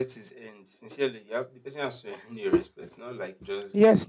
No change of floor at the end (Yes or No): No